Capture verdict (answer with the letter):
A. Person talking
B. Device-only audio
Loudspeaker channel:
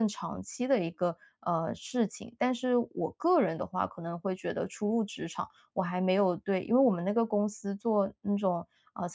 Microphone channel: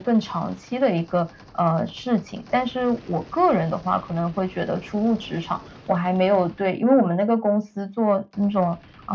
B